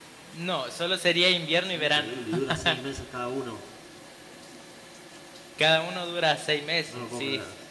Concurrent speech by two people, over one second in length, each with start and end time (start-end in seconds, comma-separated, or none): none